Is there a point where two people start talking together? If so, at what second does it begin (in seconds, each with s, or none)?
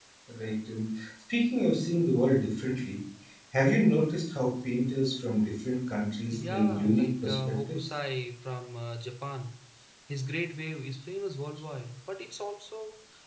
6.3 s